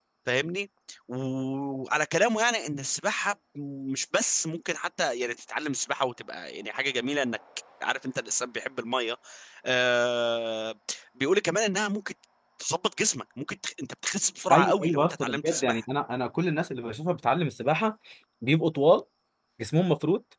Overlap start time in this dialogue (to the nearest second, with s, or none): 14 s